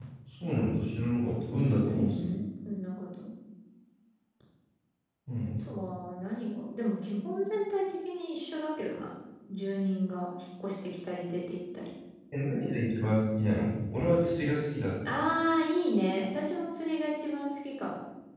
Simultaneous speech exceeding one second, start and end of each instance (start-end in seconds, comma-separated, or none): none